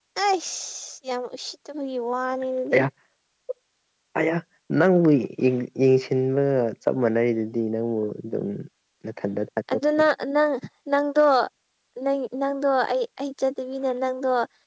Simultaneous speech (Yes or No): No